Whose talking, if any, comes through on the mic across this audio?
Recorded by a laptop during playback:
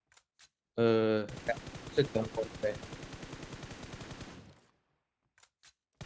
user only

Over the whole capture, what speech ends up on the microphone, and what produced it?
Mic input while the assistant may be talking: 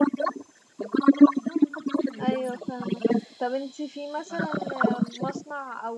both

